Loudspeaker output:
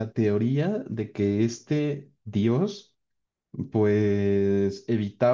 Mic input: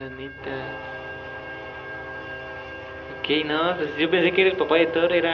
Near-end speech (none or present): present